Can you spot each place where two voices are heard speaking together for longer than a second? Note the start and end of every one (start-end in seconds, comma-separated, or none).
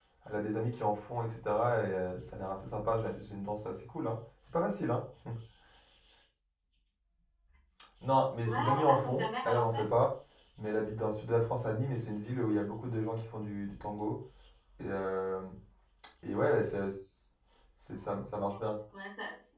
8.4-9.8